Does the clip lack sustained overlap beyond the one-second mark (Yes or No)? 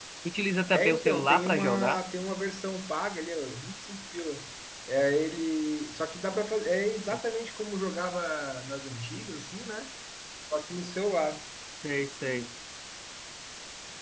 No